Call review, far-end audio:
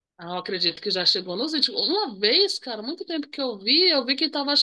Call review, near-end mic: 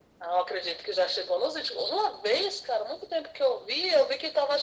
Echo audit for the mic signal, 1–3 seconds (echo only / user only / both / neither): echo only